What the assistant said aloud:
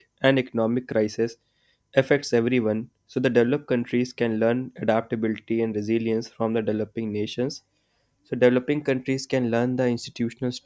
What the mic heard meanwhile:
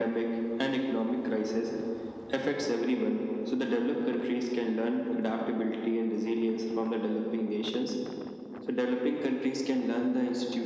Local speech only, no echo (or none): none